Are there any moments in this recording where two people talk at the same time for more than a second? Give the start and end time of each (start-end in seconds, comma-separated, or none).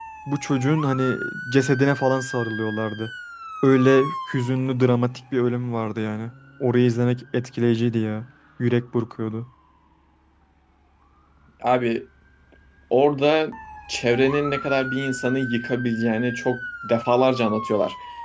none